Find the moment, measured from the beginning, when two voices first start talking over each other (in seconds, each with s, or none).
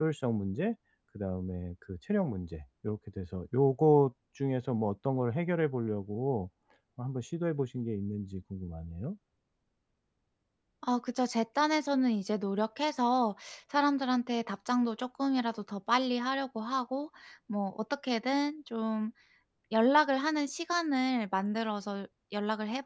none